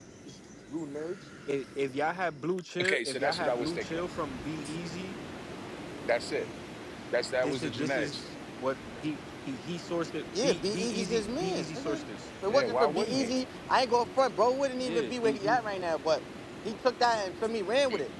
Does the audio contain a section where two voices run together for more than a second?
Yes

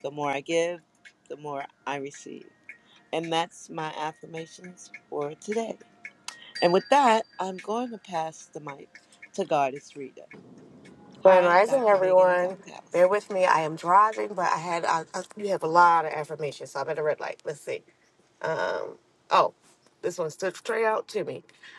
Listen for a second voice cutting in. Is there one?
Yes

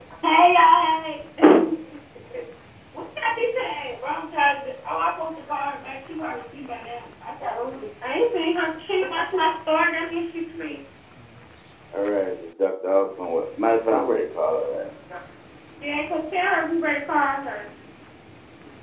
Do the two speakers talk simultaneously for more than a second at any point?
No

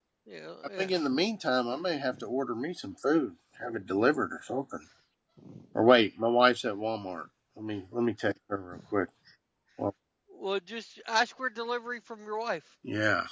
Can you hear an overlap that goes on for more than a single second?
No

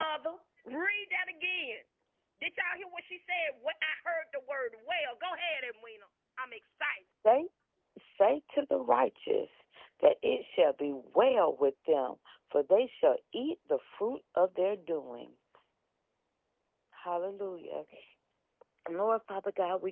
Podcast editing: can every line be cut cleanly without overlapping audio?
Yes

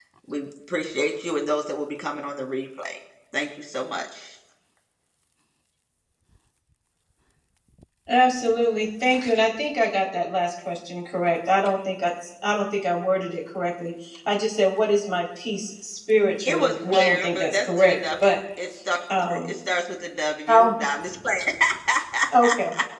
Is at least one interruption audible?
Yes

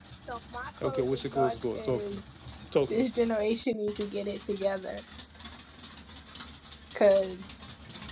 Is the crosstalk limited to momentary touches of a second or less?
No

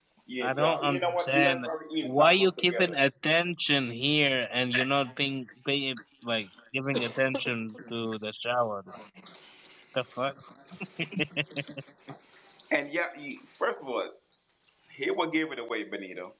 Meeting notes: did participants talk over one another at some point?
Yes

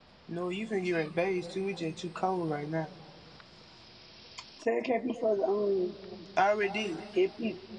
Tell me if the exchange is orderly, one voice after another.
Yes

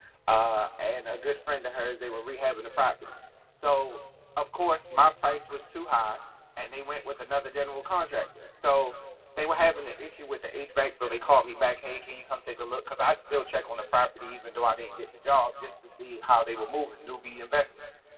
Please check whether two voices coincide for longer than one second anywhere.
No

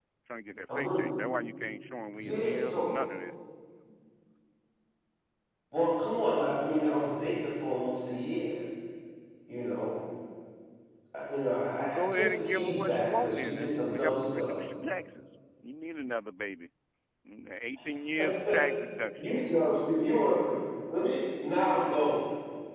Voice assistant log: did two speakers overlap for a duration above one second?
Yes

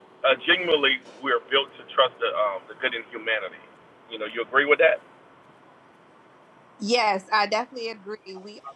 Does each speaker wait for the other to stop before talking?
Yes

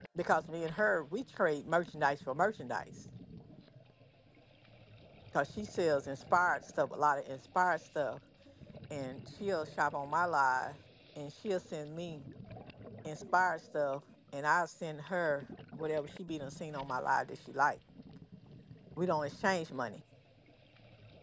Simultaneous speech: No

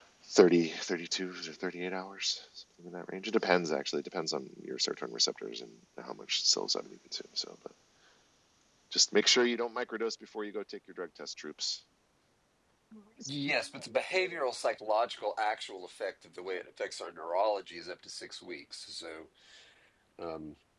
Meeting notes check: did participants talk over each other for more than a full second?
No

